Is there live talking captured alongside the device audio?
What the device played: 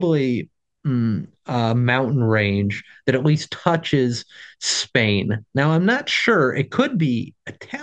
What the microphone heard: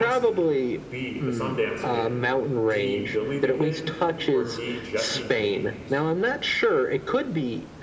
Yes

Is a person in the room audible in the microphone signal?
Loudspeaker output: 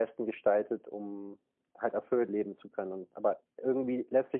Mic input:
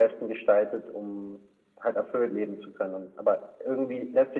No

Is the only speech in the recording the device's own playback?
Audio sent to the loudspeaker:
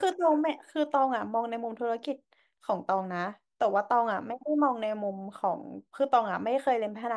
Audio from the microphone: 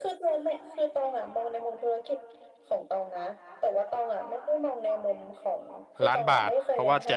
No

